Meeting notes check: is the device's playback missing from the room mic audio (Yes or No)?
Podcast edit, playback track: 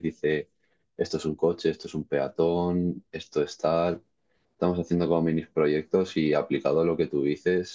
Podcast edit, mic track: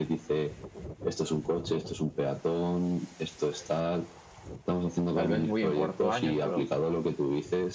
No